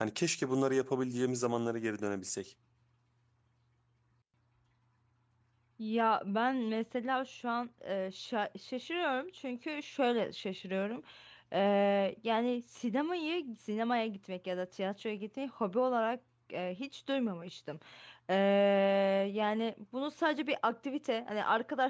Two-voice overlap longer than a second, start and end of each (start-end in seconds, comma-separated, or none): none